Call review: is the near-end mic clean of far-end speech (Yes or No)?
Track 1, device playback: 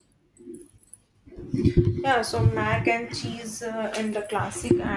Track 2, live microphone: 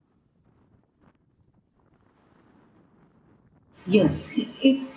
Yes